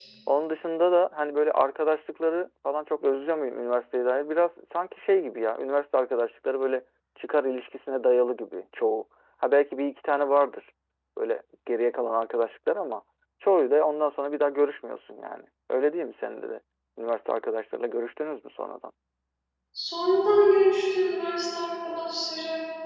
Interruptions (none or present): none